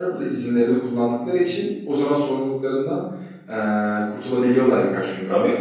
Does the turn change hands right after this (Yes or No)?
No